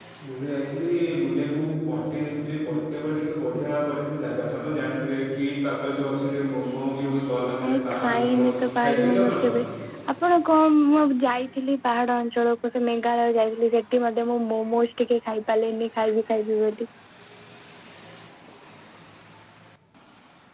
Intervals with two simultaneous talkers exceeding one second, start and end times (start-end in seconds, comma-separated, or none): 7.6-9.4